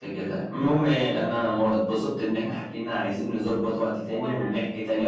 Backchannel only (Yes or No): Yes